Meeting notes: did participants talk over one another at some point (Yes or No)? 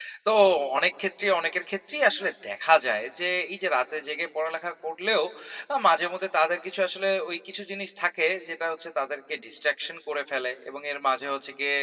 No